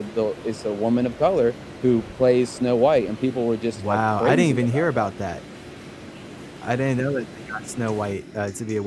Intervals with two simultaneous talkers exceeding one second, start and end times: 3.9-5.1

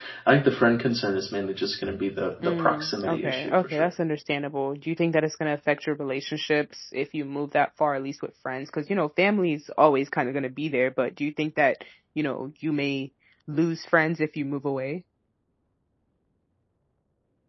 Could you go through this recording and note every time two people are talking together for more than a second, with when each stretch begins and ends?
2.4-3.9

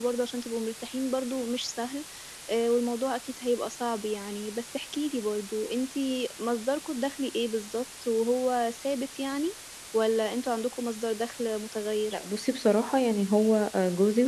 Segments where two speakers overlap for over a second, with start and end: none

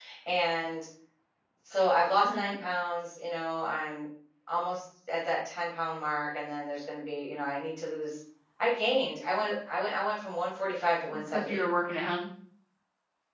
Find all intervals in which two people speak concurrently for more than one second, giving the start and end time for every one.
none

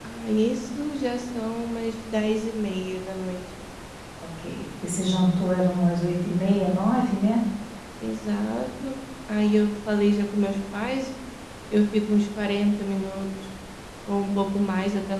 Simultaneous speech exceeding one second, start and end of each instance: none

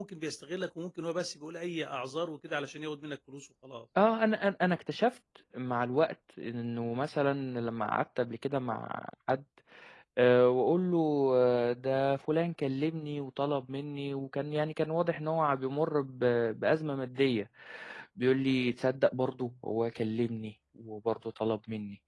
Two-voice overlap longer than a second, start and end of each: none

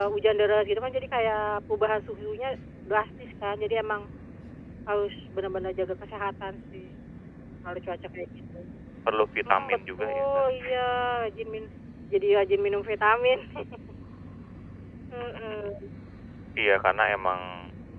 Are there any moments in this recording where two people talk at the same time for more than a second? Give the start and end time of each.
9.5-10.7

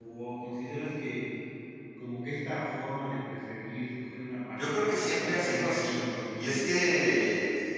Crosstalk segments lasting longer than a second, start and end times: 4.6-6.6

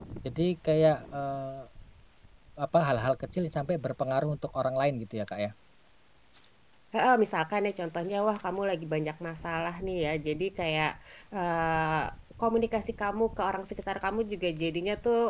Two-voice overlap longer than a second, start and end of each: none

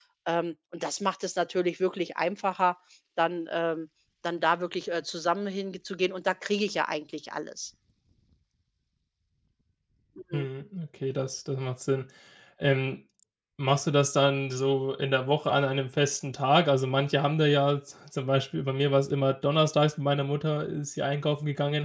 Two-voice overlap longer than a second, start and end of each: none

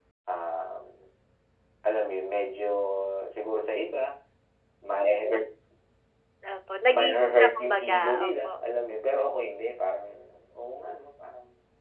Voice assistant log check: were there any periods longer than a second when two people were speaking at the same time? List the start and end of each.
6.9-8.5

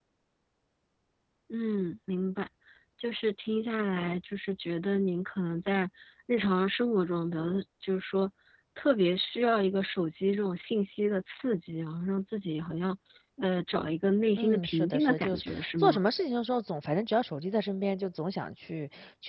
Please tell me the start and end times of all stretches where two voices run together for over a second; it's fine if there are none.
14.4-16.0

